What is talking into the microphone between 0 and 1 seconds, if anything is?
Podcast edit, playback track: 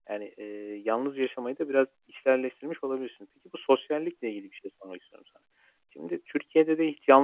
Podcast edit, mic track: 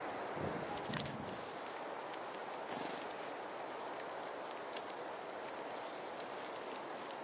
neither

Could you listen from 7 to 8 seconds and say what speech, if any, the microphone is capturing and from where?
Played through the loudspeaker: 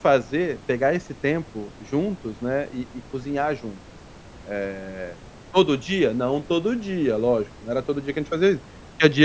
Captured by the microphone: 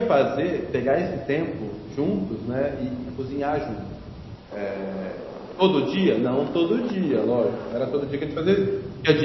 echo only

